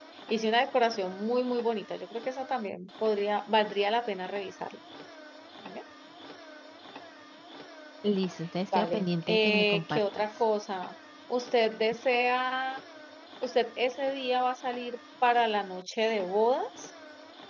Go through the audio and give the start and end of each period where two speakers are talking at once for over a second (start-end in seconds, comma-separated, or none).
8.7-10.2